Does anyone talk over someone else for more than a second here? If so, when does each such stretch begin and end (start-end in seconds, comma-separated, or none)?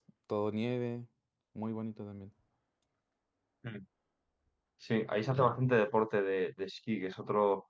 none